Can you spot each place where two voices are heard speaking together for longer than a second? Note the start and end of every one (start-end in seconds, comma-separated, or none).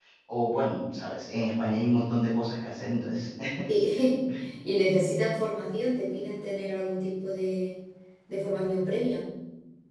none